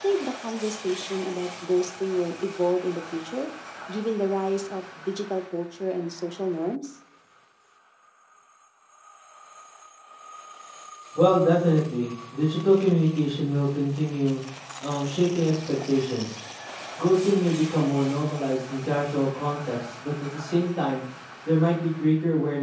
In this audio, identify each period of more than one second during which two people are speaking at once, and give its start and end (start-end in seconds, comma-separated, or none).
none